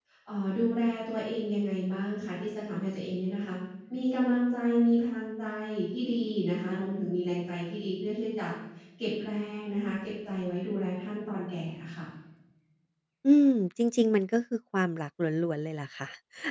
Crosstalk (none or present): none